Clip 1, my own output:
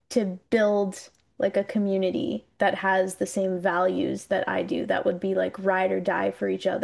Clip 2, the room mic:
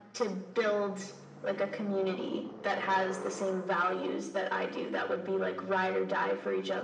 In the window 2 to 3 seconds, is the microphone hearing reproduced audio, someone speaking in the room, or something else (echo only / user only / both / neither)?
echo only